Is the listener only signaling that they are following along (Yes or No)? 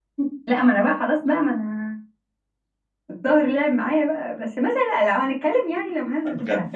No